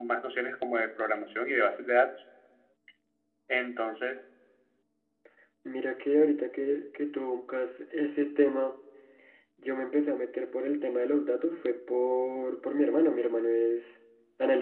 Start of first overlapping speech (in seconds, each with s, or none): none